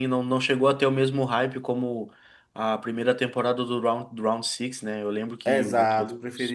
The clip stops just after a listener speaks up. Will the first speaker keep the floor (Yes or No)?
No